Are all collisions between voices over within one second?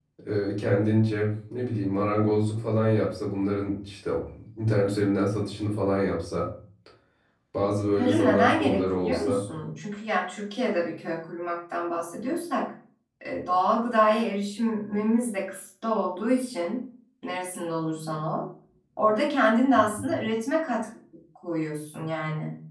No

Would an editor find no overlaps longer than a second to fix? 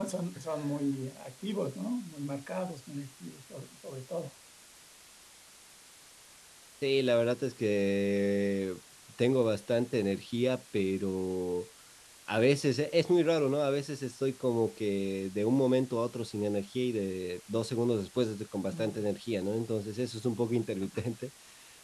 Yes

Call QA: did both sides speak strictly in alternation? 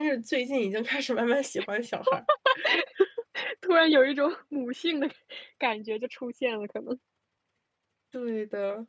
Yes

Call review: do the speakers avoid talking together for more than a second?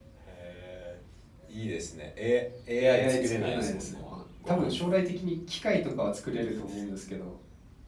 No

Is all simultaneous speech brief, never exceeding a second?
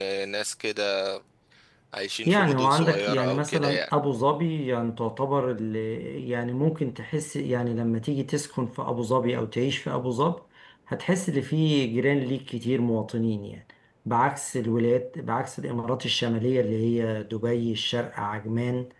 No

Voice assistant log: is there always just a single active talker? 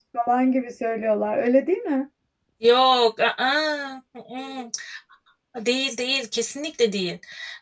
Yes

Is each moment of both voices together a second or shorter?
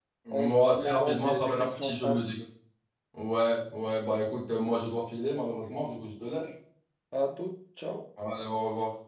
No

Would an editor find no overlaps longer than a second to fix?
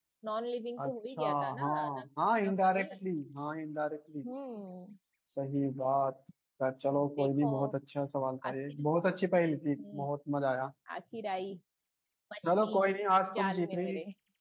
No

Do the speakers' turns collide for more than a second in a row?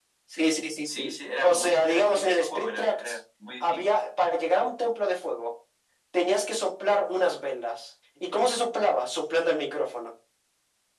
Yes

